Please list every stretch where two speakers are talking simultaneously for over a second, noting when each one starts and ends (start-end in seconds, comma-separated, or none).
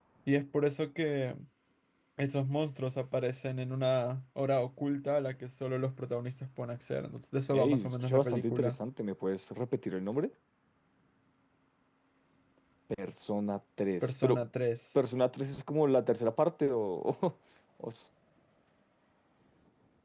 7.5-8.8